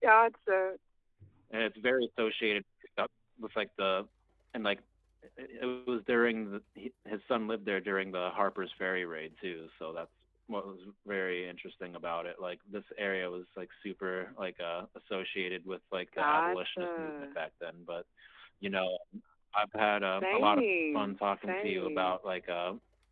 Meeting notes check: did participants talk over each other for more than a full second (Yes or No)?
Yes